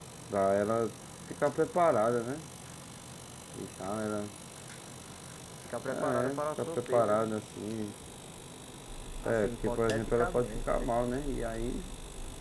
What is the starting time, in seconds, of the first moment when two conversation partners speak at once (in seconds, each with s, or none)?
5.9 s